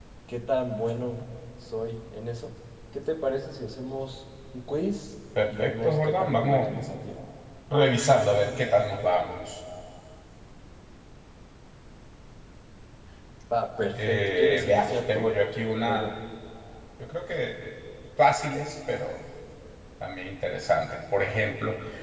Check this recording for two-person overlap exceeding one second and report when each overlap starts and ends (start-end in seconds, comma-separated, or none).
5.5-6.7, 13.9-15.3